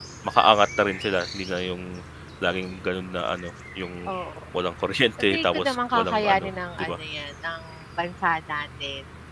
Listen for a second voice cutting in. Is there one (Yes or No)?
Yes